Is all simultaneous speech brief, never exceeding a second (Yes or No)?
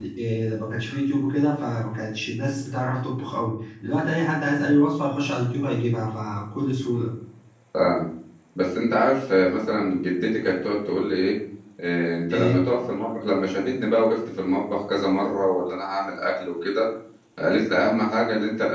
Yes